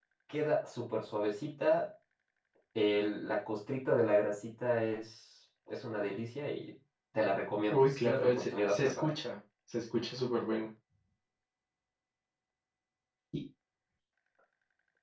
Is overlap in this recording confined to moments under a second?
No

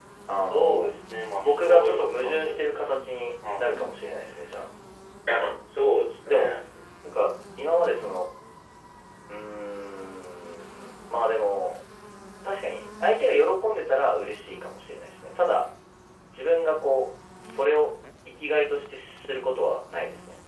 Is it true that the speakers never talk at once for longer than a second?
No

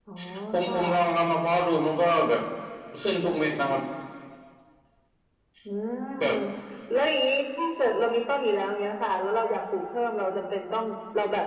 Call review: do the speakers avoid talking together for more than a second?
Yes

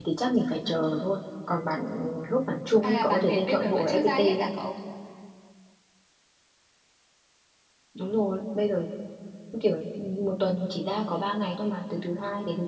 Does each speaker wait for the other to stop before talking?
No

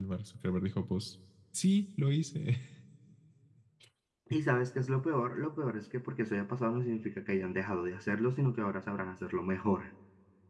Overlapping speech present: No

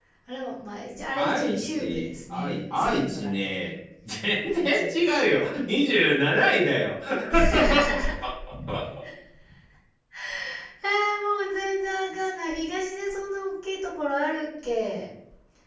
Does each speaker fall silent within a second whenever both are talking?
No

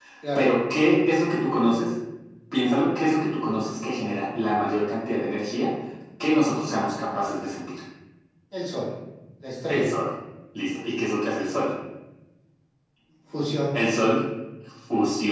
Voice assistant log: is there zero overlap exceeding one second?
Yes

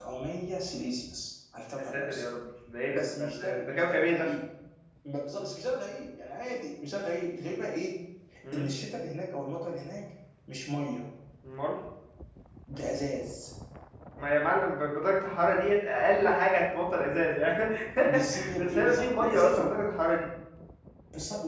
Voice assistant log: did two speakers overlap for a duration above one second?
Yes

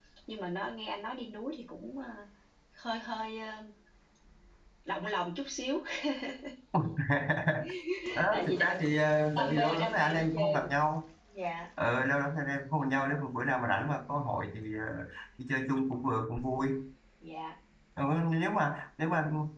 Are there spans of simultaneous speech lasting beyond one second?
Yes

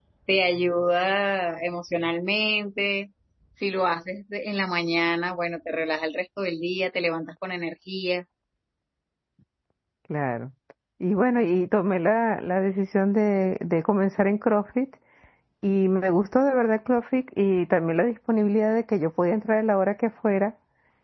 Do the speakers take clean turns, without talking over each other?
Yes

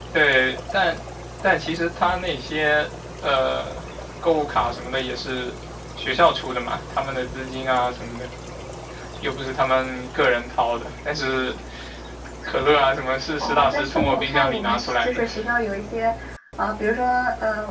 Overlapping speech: Yes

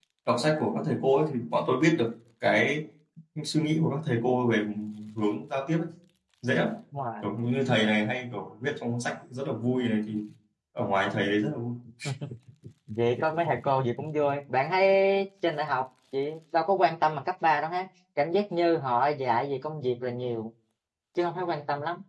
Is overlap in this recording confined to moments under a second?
Yes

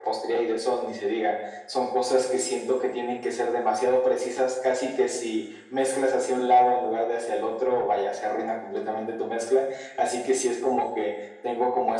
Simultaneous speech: No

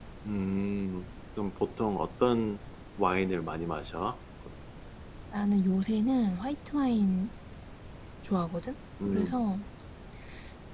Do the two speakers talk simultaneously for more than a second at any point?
No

